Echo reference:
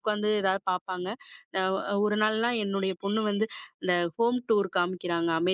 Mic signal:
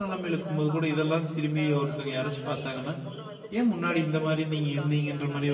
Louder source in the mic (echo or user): user